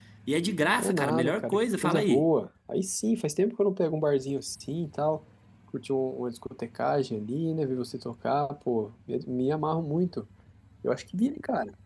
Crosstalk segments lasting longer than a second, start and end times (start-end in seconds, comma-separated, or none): 0.8-2.3